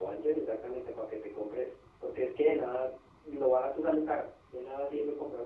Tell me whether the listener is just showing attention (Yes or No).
Yes